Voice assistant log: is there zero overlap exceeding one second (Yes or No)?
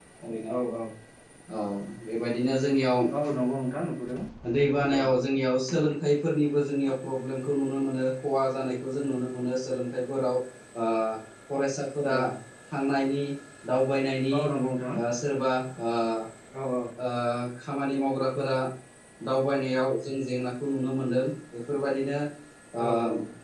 Yes